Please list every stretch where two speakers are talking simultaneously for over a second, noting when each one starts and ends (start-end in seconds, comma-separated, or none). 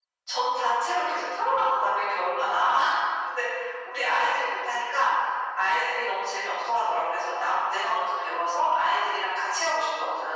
none